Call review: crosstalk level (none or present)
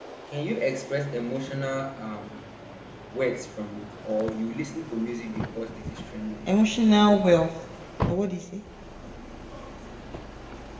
none